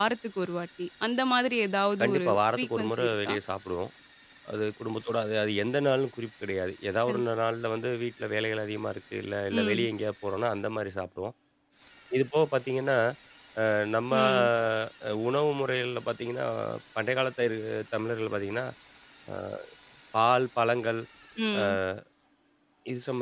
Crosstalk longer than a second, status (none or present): present